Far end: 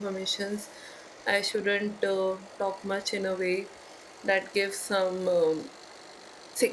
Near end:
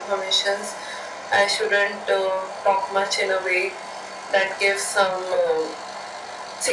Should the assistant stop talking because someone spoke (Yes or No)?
No